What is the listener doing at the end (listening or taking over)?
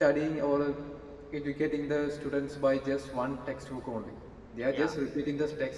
listening